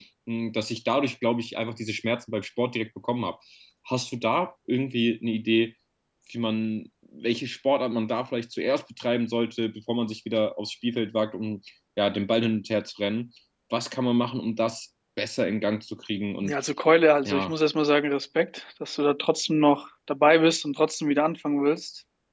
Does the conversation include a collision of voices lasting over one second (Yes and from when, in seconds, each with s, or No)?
No